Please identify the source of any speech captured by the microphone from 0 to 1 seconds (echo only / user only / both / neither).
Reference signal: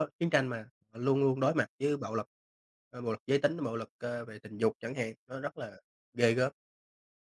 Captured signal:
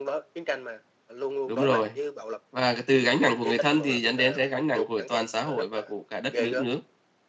echo only